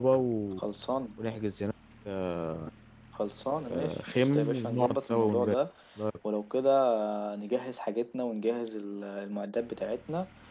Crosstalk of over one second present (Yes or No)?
Yes